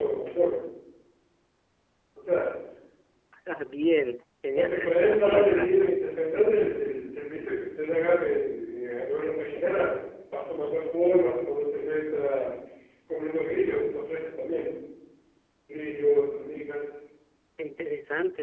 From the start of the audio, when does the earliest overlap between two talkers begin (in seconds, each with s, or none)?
4.5 s